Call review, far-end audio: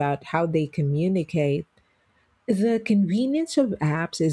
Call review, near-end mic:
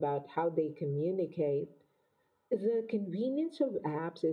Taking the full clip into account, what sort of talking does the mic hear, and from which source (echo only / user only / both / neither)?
echo only